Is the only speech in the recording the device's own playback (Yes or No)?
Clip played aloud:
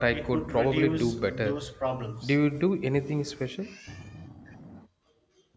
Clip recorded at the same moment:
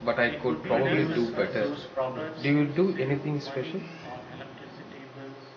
No